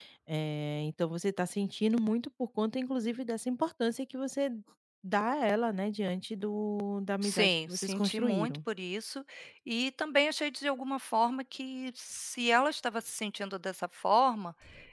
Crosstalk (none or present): present